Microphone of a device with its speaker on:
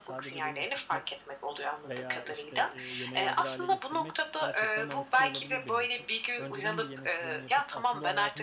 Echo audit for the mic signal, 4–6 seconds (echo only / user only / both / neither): both